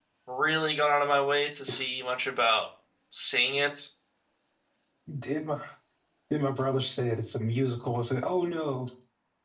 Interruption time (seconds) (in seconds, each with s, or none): none